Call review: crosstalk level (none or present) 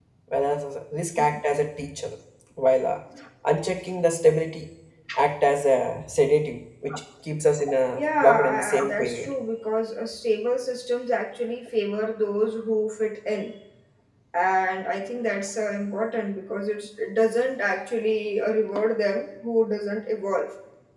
present